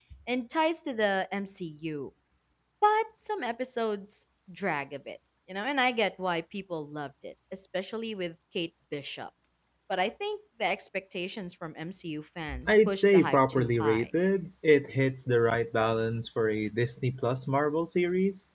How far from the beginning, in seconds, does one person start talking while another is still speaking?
12.5 s

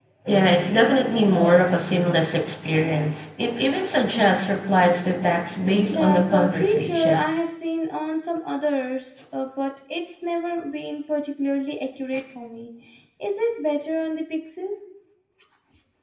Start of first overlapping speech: 5.7 s

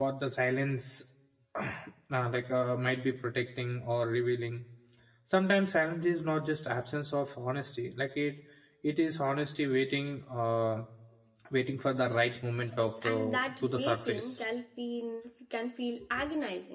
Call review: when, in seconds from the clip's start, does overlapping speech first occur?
12.7 s

